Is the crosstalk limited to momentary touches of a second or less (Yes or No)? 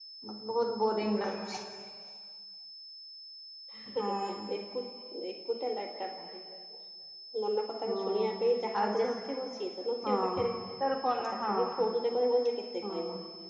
Yes